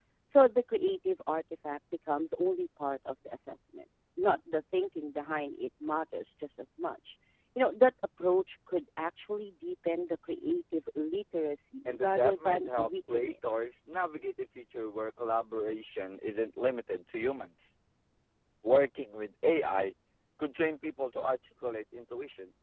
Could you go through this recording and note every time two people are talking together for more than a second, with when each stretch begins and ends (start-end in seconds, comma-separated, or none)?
11.8-13.3